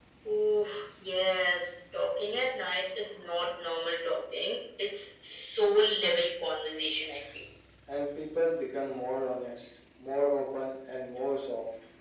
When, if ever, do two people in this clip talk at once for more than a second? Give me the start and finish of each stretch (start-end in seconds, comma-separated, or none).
none